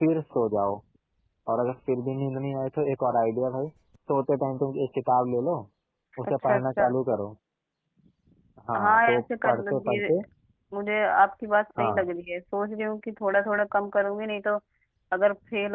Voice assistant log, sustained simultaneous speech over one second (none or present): present